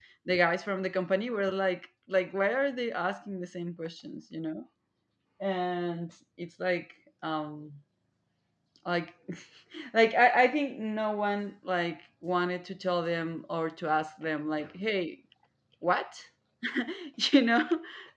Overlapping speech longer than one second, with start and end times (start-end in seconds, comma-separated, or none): none